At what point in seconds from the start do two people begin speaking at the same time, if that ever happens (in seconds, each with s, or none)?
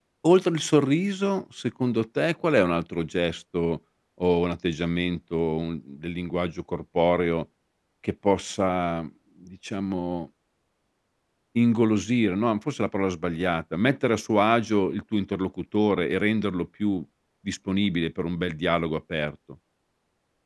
none